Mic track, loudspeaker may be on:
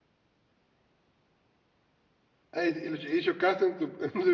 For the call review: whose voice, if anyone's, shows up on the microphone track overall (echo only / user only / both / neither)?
user only